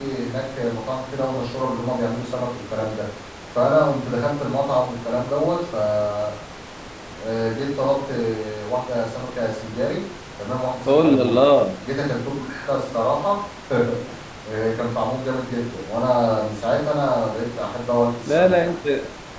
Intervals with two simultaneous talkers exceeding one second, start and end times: none

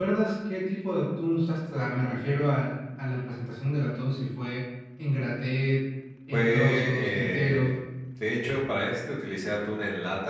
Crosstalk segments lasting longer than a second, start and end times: 6.3-7.7

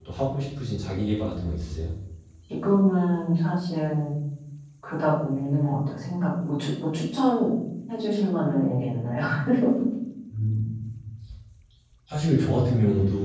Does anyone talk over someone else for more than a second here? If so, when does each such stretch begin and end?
none

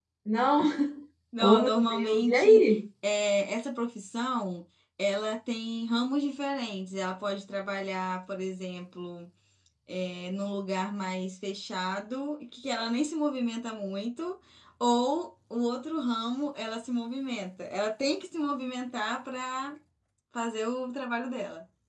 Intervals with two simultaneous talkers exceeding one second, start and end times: 1.4-2.6

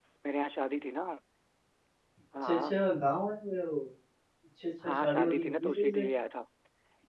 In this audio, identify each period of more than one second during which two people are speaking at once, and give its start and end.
4.8-6.0

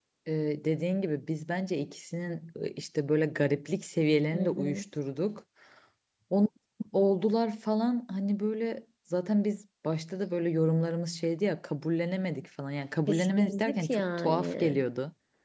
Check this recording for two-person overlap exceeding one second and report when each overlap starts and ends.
13.1-14.8

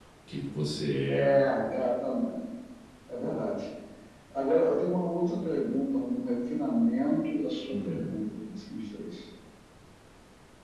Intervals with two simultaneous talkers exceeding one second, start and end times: none

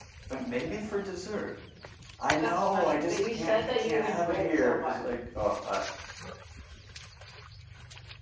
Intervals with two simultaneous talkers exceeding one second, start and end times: 2.4-5.0

